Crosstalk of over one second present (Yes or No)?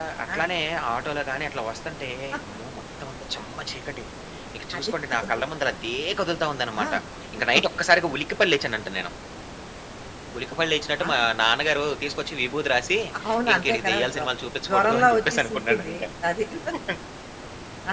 Yes